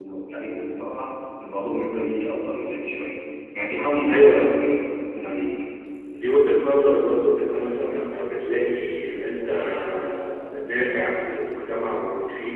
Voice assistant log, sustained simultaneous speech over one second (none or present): none